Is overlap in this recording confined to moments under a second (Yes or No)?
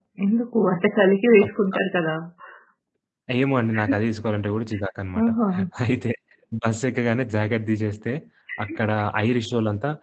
Yes